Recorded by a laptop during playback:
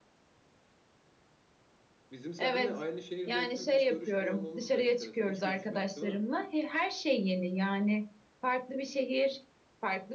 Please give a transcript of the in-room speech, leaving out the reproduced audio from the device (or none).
Bizim seninle aynı şehirde okuyup hiç görüşmüyor olmamız da enteresan. Hiç görüşmedik değil mi?